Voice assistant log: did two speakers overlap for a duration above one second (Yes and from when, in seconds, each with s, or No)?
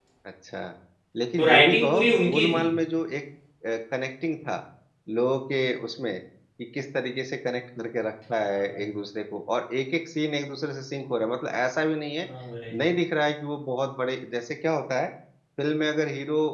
Yes, from 1.4 s